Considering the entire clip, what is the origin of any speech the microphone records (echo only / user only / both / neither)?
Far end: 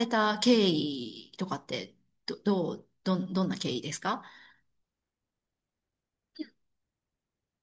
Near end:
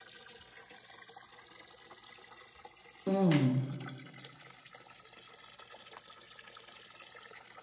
user only